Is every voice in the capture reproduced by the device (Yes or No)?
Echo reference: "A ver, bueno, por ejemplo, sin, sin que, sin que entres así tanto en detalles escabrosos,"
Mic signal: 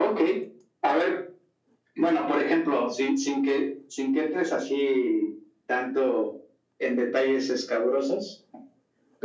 Yes